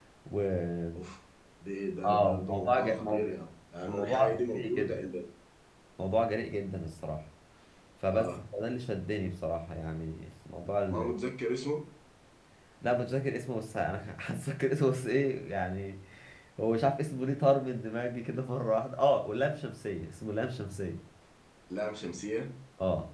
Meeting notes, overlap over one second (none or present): present